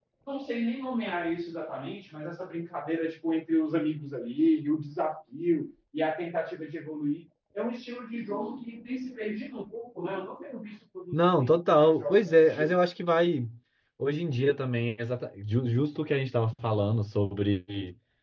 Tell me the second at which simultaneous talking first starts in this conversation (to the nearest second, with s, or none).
11 s